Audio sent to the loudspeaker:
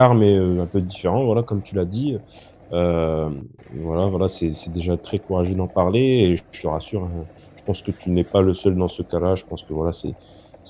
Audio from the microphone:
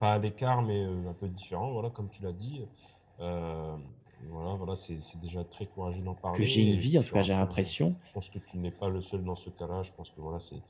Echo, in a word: present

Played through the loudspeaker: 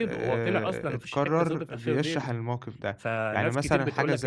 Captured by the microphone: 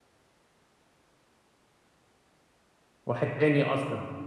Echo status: none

